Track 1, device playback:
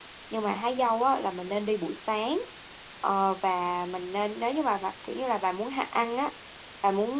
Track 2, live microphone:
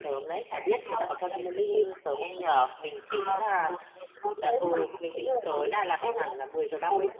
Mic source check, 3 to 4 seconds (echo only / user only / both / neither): both